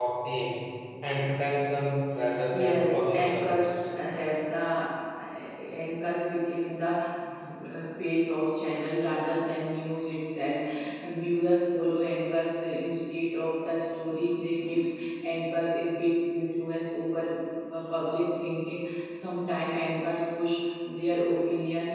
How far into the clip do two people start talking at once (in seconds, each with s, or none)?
2.5 s